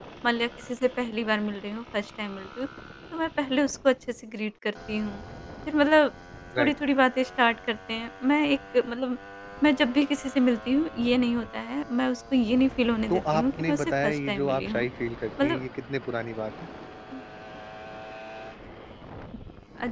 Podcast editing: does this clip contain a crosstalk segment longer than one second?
Yes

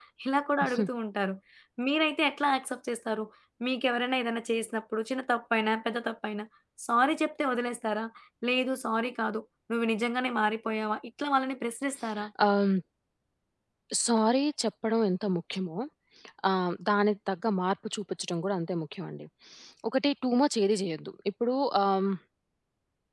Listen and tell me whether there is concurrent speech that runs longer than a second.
No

